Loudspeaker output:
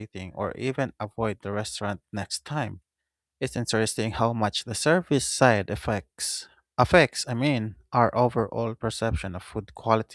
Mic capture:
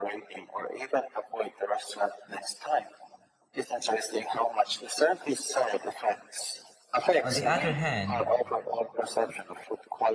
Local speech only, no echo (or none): On the other hand,